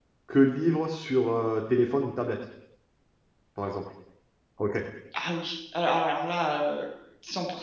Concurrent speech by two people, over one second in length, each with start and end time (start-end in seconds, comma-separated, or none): none